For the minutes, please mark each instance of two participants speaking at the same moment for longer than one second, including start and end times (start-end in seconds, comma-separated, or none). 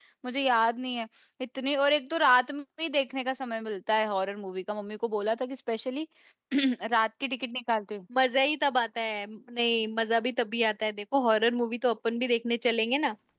none